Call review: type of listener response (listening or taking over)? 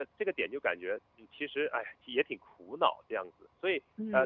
taking over